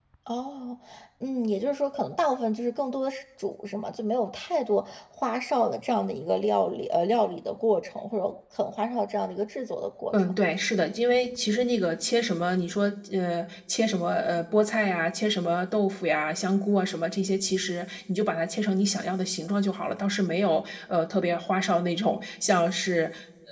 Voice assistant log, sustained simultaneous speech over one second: none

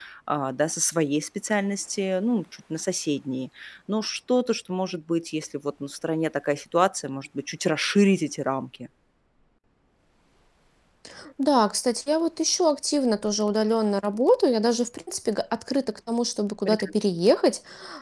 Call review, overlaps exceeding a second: none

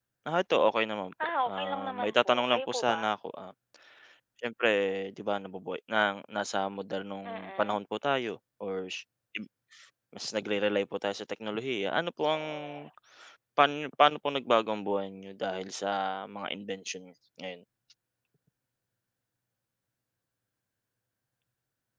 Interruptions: present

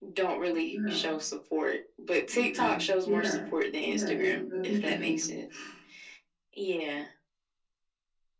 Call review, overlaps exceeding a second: present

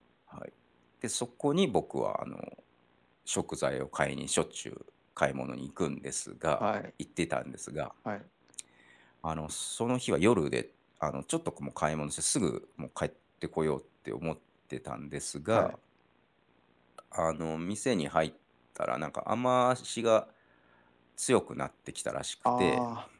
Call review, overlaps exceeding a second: none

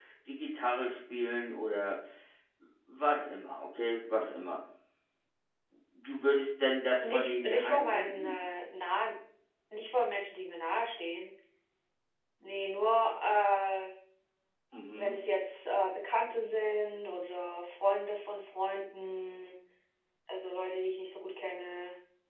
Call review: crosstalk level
present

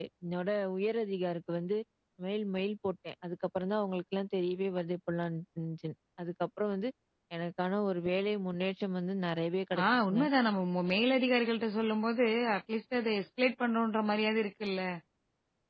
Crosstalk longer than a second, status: none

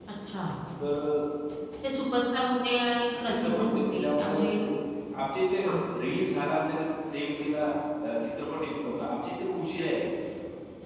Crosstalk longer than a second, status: present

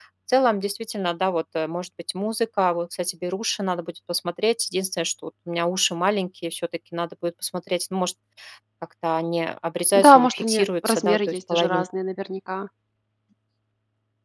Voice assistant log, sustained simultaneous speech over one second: present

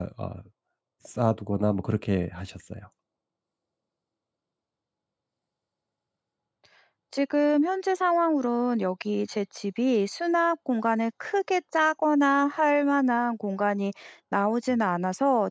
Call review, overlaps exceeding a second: none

